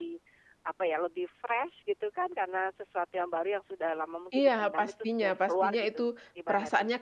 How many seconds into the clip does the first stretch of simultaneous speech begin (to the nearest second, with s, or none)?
4 s